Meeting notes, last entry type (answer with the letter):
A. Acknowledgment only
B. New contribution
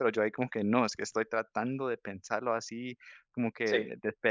A